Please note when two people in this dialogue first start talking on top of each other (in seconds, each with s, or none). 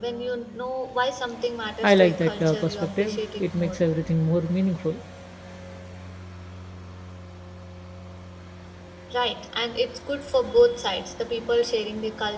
1.8 s